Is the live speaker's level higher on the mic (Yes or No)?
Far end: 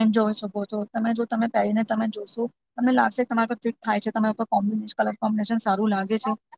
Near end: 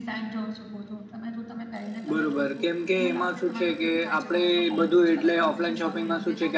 Yes